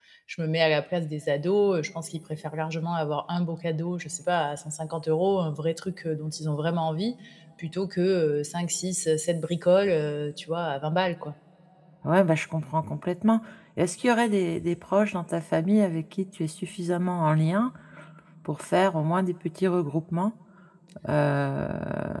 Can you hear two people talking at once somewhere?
No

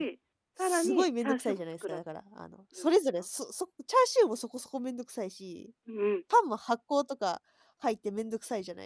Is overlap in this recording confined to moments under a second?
No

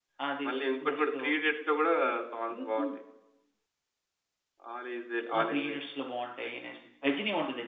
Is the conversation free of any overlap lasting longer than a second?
Yes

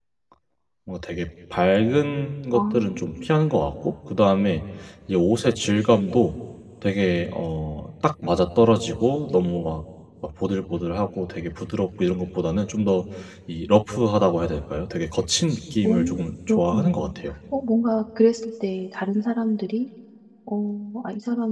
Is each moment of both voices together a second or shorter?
No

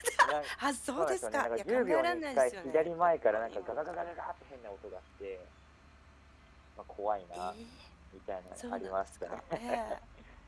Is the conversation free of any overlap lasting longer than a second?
No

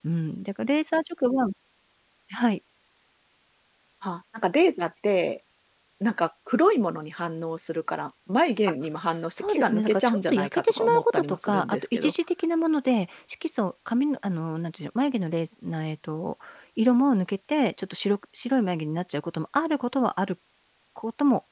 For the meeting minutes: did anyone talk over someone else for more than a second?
Yes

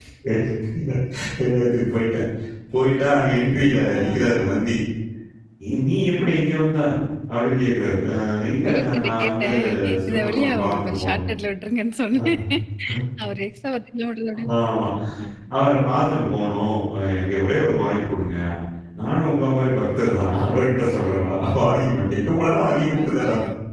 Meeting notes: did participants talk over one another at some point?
Yes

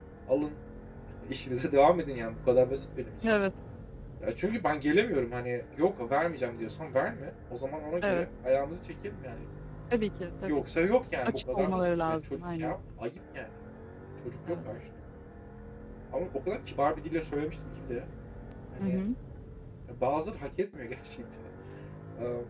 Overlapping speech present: Yes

